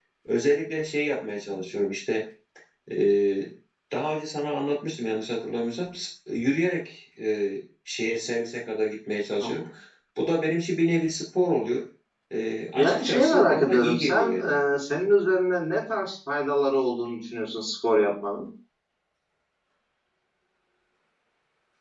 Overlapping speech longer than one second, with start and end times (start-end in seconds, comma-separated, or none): 12.8-14.4